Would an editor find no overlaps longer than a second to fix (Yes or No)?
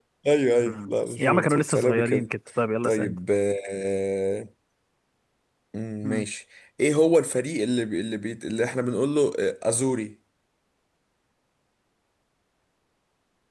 No